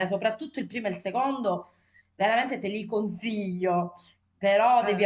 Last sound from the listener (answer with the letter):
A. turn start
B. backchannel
B